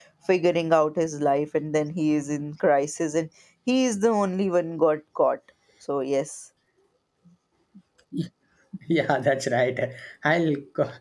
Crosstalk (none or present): none